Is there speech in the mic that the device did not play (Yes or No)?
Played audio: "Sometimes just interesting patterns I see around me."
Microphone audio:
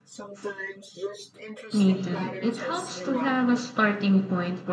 Yes